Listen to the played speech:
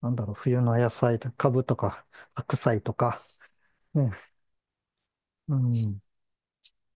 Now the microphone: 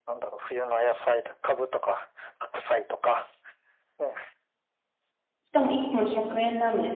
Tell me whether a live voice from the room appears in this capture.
Yes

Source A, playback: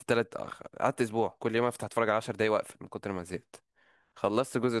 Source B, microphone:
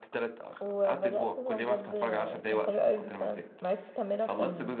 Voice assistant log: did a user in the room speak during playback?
Yes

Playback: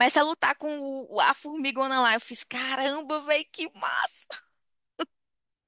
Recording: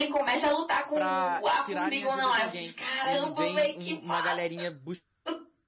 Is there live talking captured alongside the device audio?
Yes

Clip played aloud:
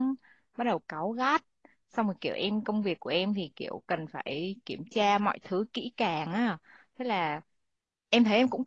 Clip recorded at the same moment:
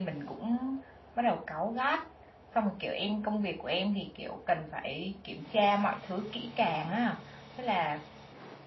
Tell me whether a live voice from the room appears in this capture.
No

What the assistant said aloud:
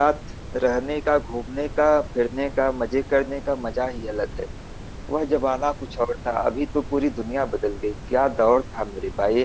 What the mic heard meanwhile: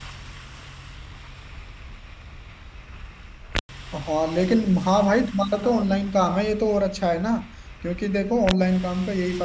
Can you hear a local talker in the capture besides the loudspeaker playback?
Yes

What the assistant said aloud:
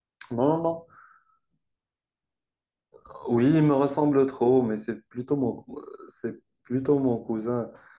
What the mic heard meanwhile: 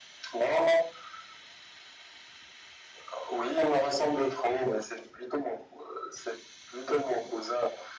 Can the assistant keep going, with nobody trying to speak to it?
Yes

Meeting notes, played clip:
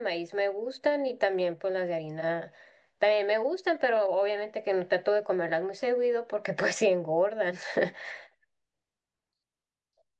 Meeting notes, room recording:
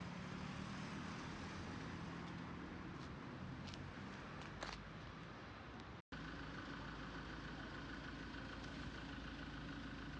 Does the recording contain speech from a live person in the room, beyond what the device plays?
No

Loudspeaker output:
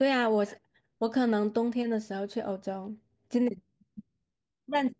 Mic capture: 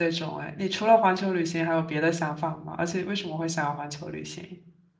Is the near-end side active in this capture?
Yes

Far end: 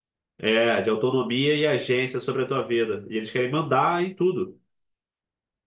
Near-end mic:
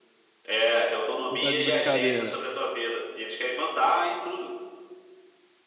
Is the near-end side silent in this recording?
No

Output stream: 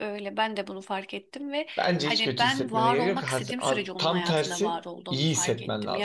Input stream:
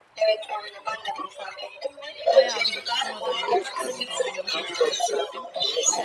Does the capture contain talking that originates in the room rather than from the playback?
Yes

